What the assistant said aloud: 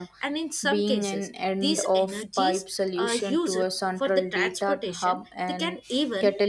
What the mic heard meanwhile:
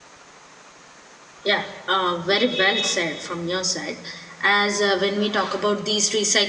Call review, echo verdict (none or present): none